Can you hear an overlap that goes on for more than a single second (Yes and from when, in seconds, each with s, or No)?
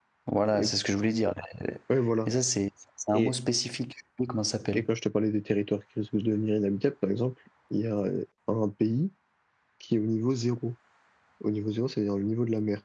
No